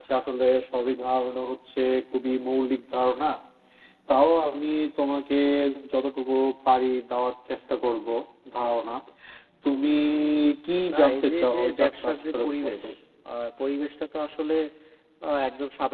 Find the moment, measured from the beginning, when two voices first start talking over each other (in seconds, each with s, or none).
10.9 s